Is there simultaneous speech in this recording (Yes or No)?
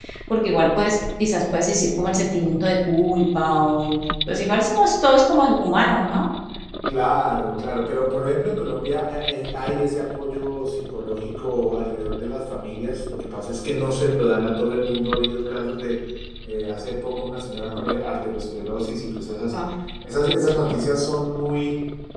No